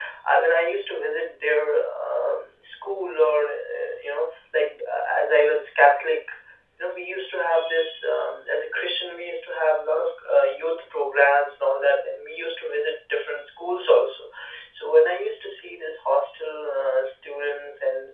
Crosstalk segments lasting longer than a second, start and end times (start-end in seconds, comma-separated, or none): none